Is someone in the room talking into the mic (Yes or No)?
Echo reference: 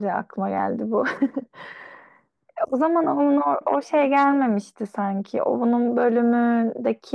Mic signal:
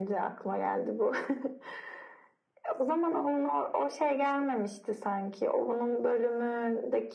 No